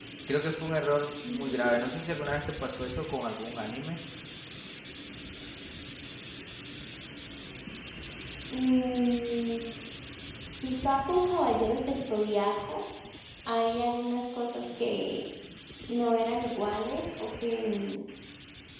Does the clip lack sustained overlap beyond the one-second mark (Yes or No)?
Yes